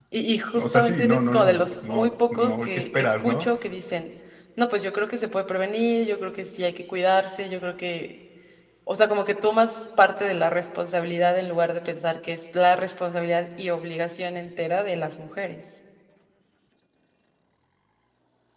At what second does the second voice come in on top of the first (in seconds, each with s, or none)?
0.6 s